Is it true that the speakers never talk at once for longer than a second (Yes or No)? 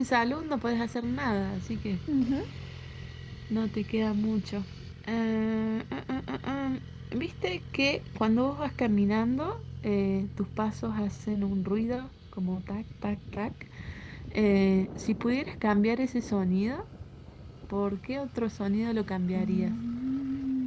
Yes